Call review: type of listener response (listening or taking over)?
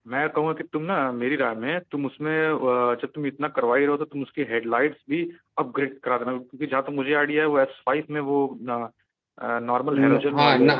taking over